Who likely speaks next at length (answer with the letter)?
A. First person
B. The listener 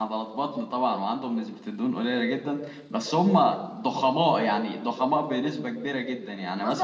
B